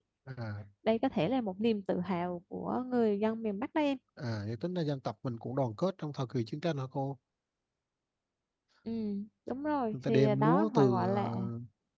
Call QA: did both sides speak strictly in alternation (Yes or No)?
No